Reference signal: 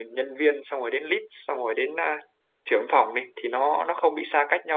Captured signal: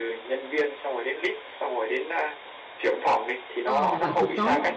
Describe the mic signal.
both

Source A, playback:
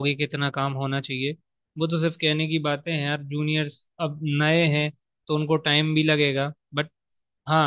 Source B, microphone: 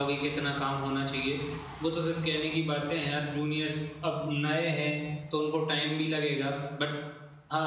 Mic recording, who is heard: echo only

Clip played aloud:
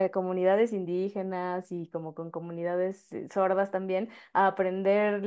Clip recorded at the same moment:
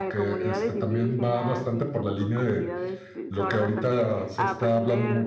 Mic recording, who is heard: both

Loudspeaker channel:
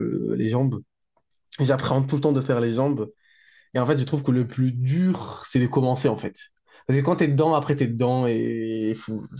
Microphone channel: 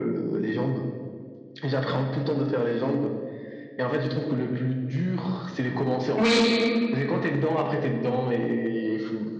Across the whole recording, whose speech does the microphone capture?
both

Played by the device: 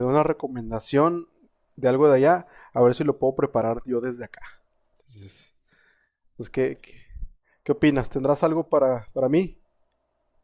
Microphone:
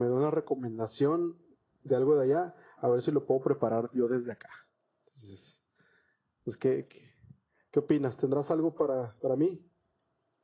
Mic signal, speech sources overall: echo only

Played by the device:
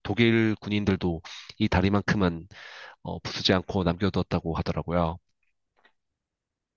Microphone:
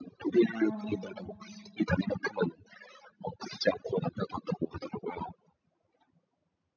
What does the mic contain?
both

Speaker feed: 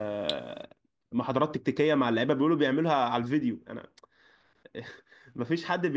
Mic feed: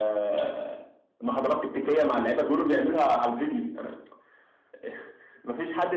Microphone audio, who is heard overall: echo only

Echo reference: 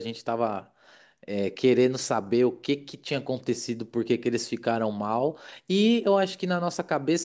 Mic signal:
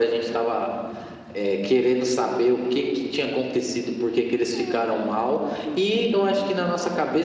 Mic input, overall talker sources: both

